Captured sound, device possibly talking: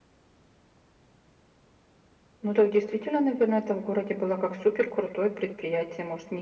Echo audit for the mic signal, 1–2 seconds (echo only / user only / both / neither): neither